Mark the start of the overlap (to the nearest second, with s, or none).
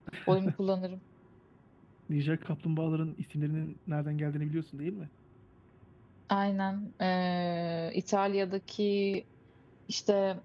none